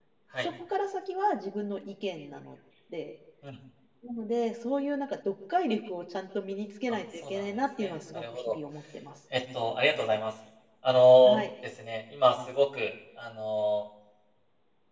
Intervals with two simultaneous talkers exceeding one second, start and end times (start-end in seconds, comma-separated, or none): 6.9-8.6